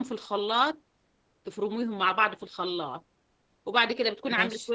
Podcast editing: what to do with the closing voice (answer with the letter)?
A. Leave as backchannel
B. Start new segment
A